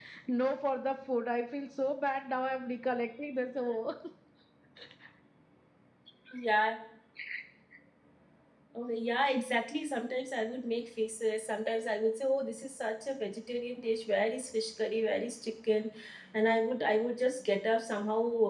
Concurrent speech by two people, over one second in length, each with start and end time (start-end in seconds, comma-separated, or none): none